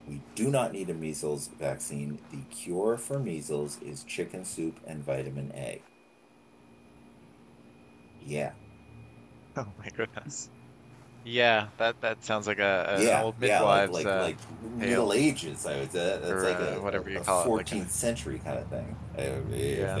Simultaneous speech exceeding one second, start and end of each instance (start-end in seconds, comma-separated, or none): 12.9-14.3, 16.3-17.8